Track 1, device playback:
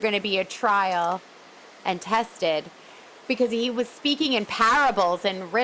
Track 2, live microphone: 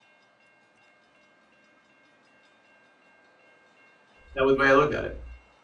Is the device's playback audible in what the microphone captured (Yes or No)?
No